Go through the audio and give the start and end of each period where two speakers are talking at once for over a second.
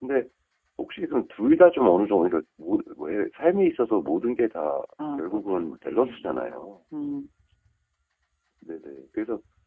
5.2-6.7

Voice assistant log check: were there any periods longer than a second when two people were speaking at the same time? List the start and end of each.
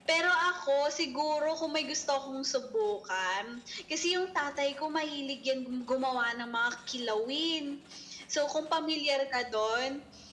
none

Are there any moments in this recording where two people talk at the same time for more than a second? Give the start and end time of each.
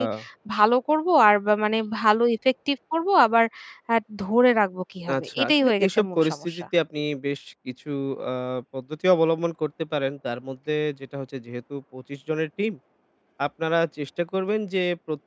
5.1-6.7

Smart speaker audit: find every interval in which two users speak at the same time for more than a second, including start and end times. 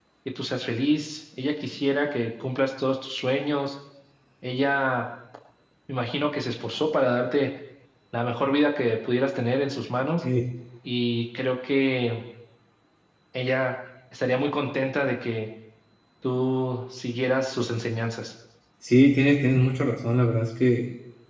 none

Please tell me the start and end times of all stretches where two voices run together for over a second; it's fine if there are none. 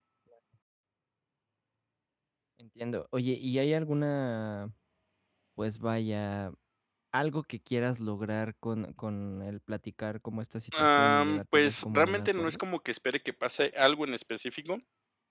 10.7-12.6

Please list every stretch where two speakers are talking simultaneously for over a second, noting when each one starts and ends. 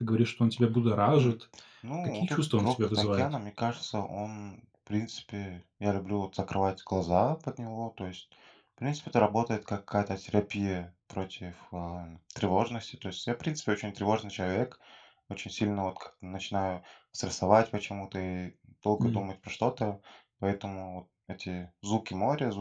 2.0-3.3

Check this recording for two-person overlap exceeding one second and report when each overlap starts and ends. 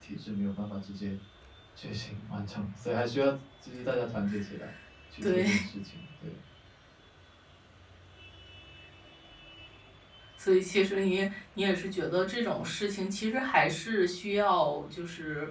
none

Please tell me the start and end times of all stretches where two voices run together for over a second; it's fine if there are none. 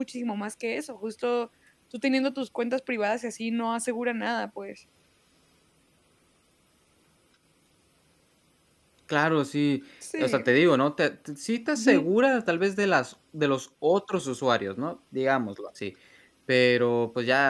none

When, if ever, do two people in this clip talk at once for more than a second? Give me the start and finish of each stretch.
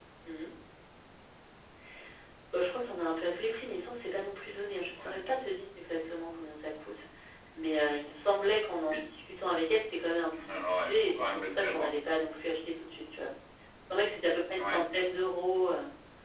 10.3-11.9

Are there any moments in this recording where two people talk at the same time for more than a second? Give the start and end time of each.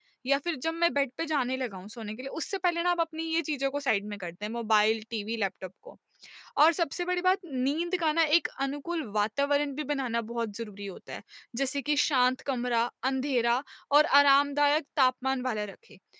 none

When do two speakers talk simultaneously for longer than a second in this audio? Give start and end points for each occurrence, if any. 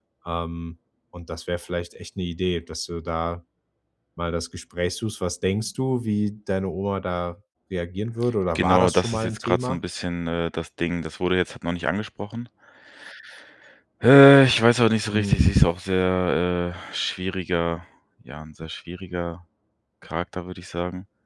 8.6-9.8

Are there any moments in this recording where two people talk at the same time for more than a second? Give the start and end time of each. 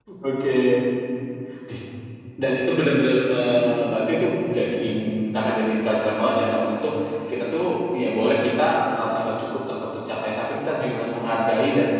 none

